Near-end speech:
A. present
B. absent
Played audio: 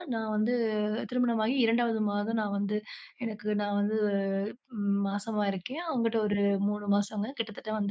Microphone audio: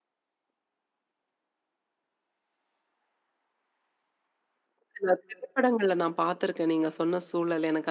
A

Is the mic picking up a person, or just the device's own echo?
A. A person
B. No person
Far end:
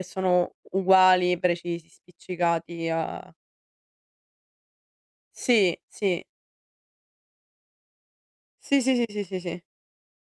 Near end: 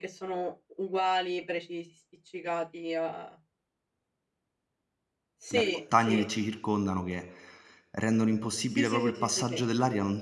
A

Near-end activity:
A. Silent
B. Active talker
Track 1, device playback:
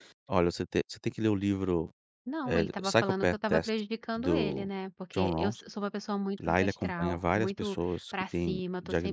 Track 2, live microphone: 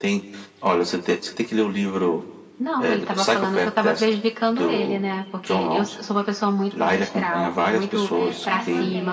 B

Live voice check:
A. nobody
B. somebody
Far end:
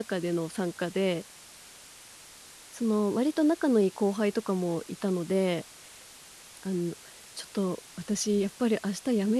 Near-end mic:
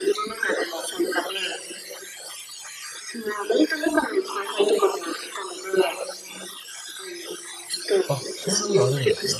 B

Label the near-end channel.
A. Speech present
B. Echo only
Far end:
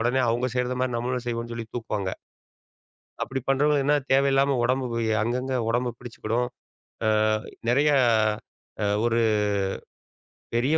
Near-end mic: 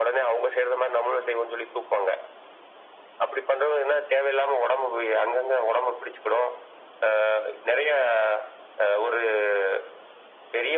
B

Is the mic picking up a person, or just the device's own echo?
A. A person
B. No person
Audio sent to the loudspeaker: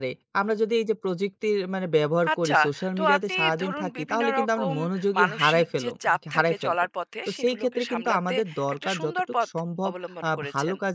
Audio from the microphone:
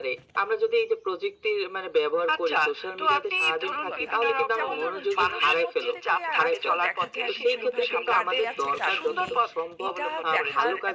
A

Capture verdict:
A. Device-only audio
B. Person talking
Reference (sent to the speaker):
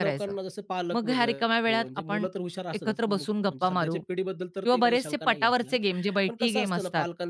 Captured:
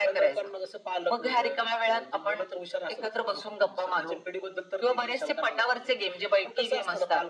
A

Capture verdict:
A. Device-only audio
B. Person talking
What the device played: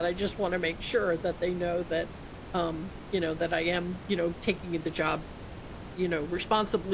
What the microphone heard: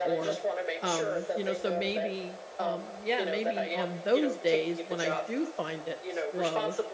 B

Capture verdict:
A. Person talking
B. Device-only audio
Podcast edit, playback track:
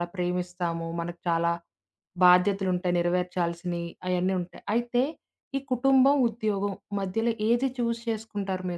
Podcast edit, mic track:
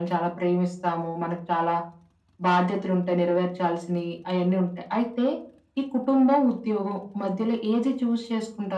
B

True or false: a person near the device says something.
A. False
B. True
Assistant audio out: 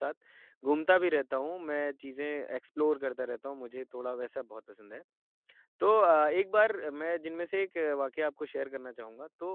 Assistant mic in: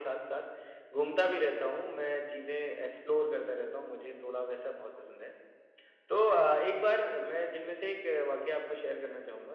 A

